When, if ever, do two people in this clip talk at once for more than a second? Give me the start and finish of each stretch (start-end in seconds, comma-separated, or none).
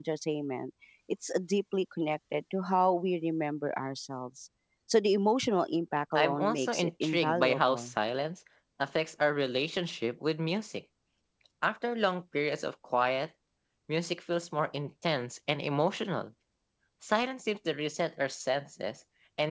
6.2-7.9